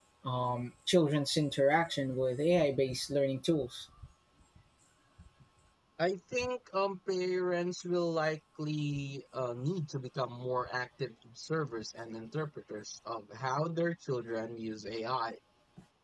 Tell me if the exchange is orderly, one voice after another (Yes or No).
Yes